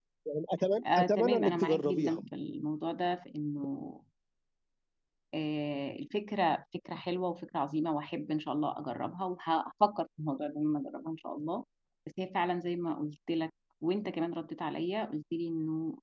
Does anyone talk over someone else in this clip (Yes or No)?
Yes